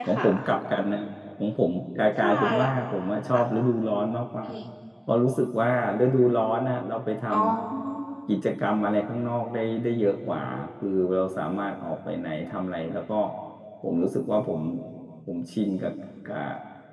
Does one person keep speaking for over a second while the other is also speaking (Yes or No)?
No